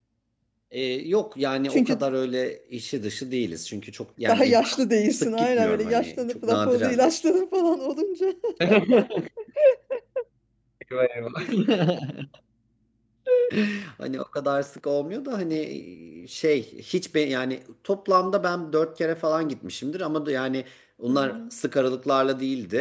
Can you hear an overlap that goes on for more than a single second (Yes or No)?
Yes